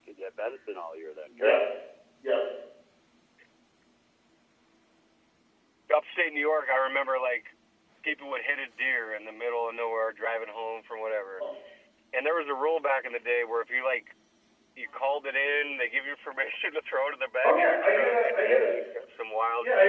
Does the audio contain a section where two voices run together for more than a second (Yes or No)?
Yes